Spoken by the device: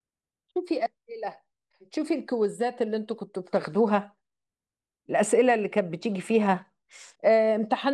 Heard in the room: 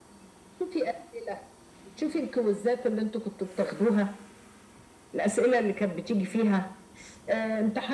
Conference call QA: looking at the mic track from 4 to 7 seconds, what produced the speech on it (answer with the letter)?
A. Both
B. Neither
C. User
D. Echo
D